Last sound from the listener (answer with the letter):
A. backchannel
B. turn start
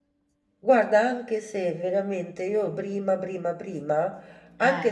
A